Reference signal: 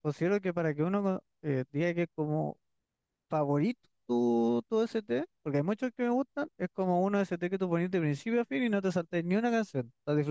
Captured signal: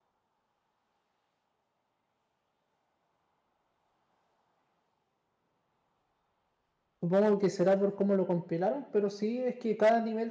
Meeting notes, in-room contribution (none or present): present